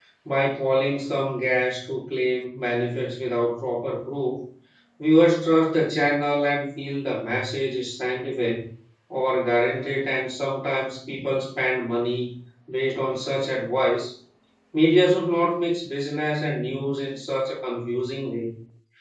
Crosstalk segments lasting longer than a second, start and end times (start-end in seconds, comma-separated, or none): none